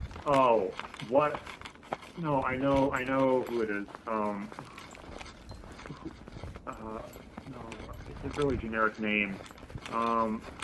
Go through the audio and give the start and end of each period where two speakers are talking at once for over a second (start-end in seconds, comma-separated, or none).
none